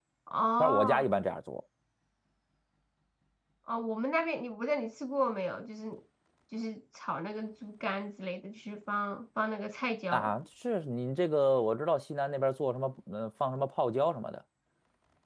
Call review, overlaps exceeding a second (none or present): none